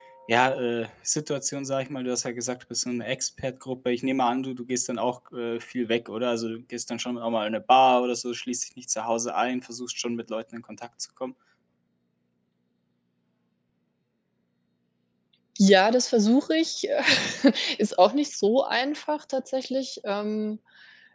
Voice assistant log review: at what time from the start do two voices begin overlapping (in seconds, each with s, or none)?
none